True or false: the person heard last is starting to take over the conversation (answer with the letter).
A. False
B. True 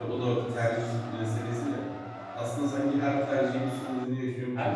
B